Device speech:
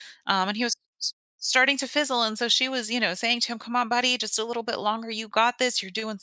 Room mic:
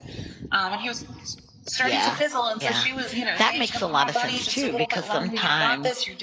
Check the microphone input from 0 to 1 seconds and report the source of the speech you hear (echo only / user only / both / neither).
echo only